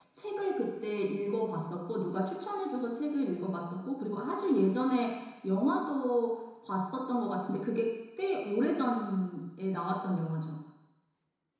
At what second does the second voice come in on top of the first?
none

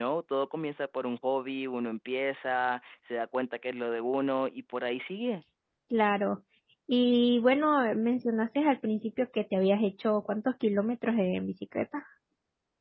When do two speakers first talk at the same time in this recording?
none

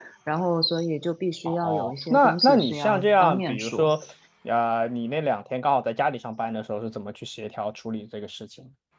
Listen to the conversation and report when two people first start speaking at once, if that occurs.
1.4 s

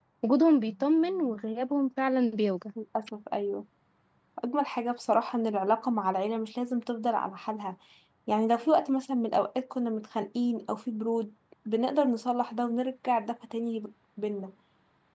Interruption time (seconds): none

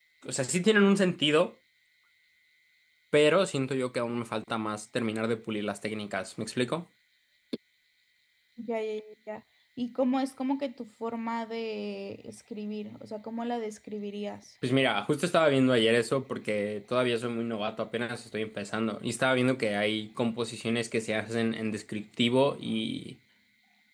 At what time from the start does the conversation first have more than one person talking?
none

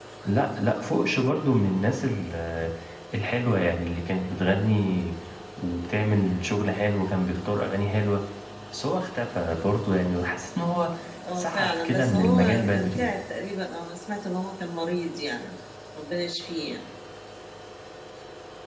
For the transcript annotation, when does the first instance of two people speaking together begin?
11.4 s

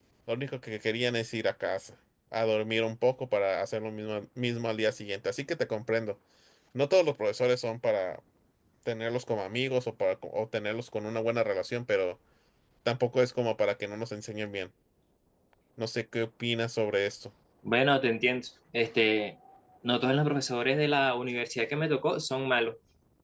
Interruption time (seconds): none

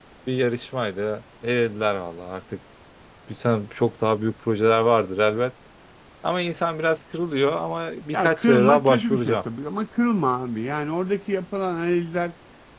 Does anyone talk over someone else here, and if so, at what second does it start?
8.1 s

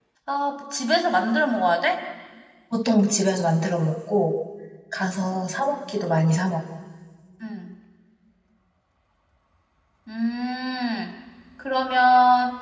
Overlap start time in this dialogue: none

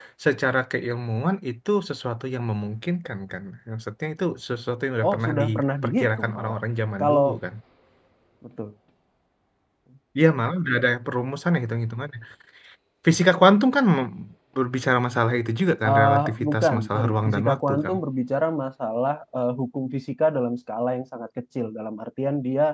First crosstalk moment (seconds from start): 5.1 s

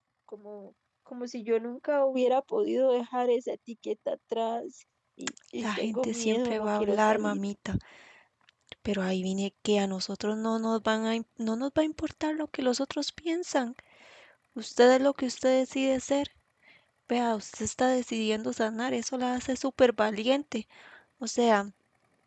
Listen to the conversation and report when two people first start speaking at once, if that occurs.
5.6 s

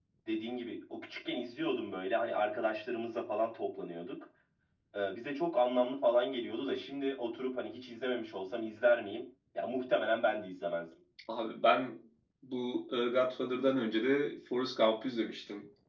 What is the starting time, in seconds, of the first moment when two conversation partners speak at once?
none

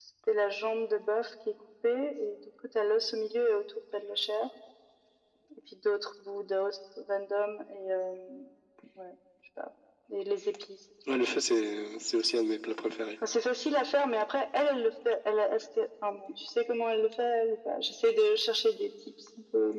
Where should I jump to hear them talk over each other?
none

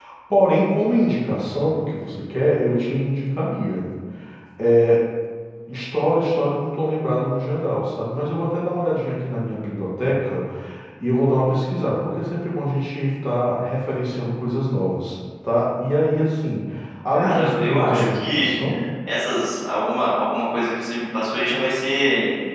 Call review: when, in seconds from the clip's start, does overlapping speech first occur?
17.1 s

